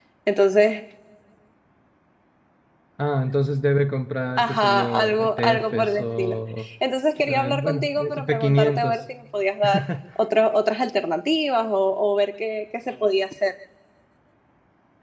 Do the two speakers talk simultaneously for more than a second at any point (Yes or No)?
Yes